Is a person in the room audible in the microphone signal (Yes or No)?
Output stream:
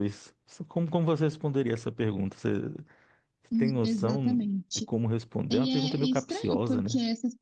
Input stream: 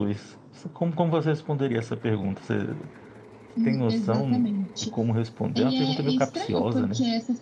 No